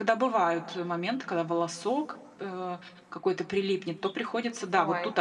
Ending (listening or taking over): listening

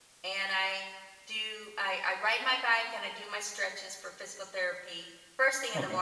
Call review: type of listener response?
listening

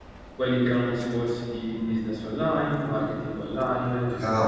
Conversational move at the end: taking over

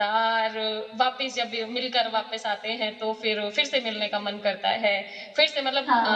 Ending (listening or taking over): listening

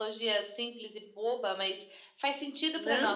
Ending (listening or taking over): taking over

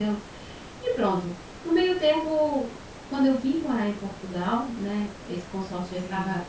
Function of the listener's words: listening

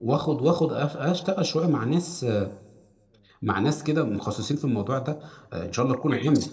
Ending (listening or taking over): listening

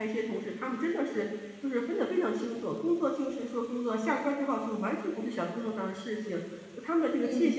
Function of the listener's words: listening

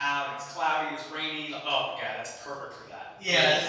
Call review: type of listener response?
taking over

